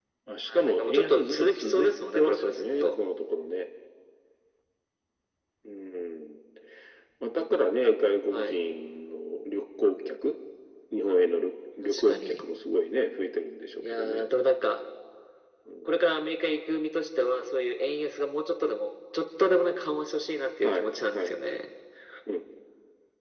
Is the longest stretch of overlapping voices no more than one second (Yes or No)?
No